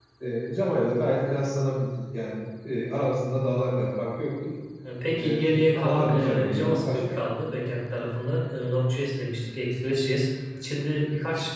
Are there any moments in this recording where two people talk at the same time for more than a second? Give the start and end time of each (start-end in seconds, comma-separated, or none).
5.2-7.0